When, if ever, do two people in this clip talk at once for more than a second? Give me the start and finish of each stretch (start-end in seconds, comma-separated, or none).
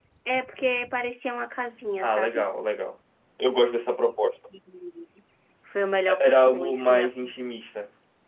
6.1-7.3